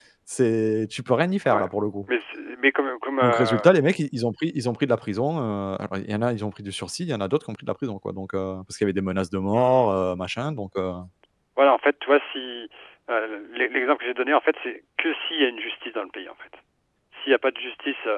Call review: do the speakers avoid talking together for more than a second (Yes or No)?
Yes